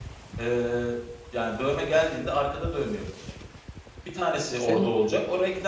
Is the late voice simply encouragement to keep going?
Yes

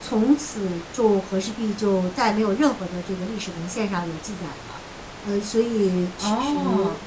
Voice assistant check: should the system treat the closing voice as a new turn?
No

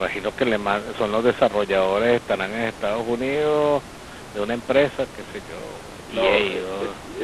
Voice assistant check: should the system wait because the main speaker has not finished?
No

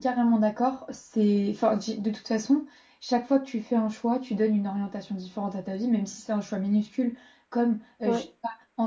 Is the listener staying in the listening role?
Yes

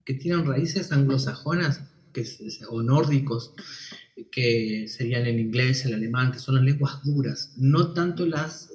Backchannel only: Yes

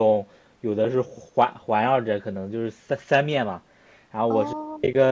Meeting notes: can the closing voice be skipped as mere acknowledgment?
Yes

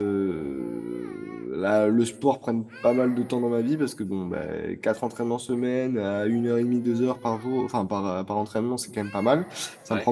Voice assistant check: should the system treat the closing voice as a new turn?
No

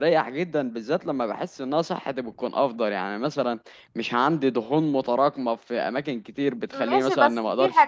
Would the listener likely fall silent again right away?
No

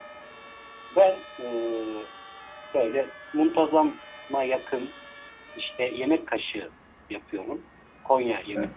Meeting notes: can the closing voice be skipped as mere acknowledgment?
Yes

